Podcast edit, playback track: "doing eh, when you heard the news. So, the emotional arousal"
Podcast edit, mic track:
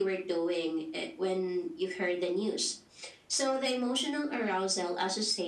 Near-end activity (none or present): none